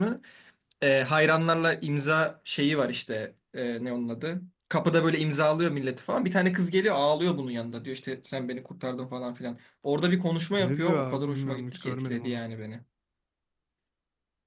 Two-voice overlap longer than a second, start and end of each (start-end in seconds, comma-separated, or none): 10.5-12.4